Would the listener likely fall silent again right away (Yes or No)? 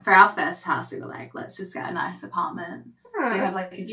Yes